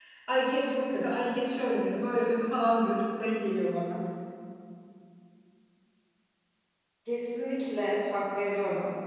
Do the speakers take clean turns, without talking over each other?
Yes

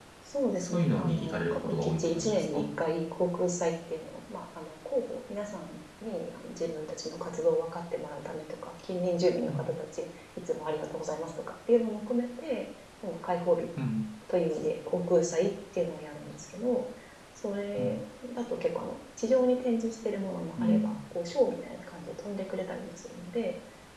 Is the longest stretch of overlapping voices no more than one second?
No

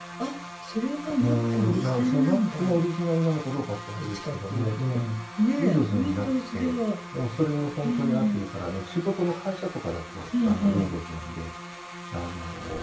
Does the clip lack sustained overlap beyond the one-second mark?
No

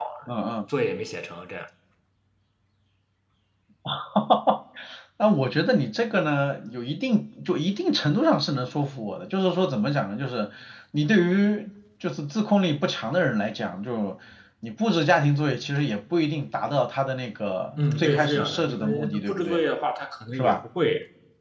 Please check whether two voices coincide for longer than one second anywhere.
Yes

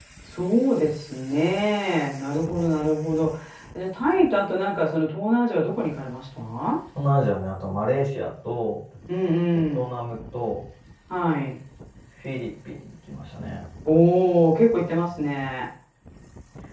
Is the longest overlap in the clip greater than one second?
No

